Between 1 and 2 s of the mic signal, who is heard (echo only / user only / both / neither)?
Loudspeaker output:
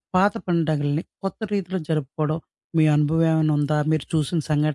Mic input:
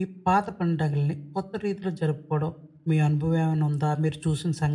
echo only